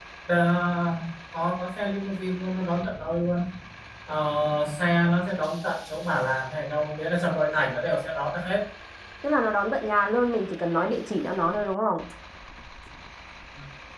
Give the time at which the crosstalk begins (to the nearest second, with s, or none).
none